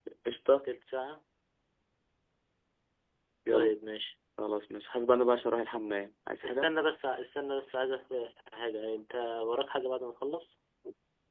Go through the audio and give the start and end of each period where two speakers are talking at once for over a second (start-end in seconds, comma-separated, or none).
none